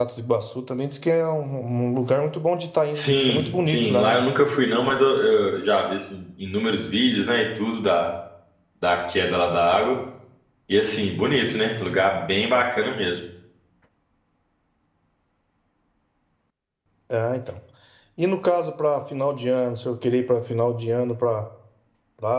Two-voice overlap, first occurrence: 2.9 s

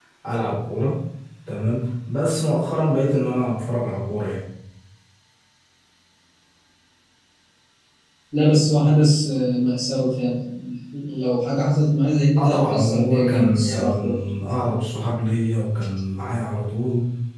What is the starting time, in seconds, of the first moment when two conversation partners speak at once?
12.4 s

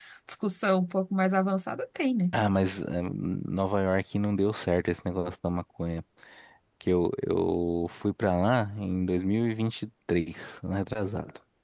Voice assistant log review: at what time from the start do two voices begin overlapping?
none

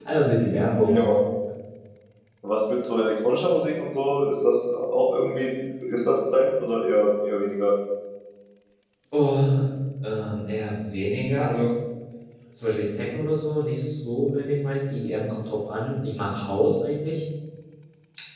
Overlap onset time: none

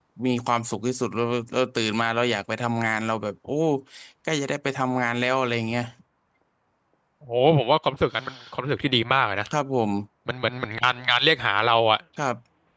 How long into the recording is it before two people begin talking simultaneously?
none

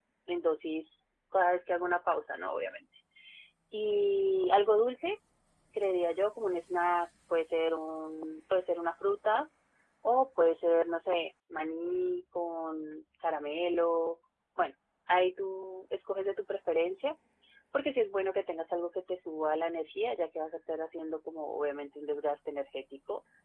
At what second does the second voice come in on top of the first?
none

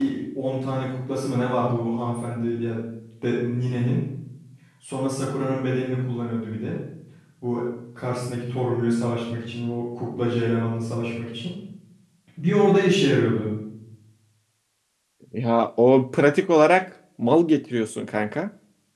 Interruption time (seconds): none

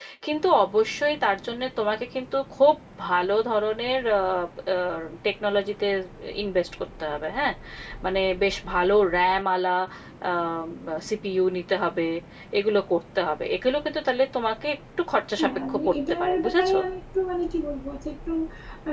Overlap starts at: 15.4 s

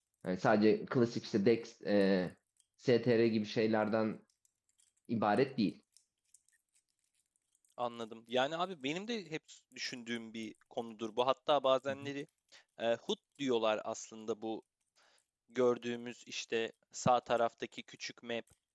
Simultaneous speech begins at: none

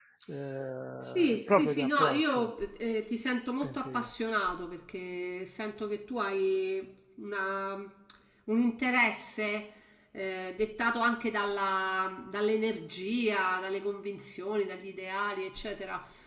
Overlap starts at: 1.0 s

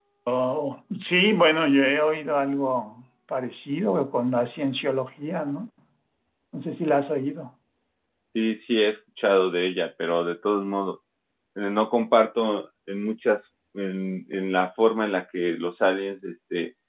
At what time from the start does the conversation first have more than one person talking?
none

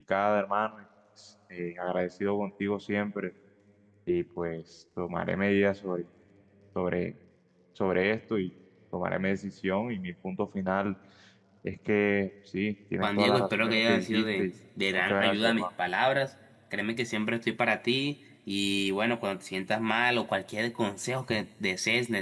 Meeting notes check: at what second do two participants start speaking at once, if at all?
13.0 s

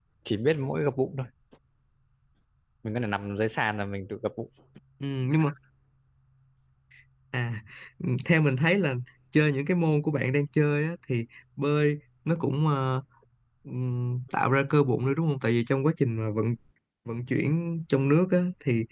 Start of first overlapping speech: none

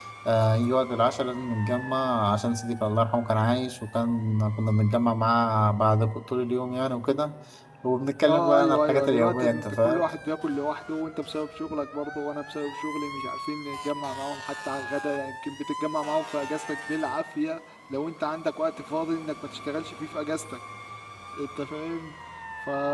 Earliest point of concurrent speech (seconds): 8.3 s

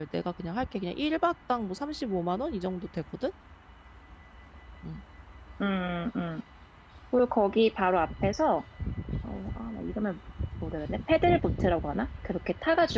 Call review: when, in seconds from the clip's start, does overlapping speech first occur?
none

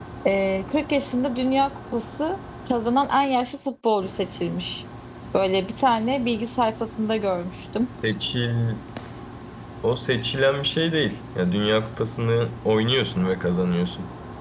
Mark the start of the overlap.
none

